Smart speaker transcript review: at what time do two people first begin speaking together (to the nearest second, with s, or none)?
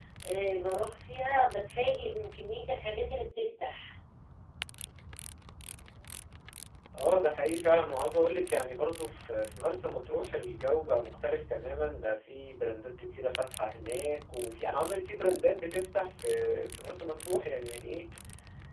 none